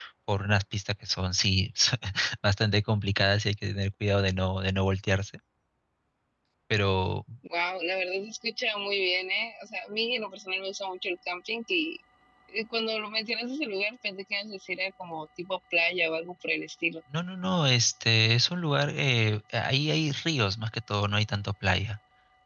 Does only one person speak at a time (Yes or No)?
Yes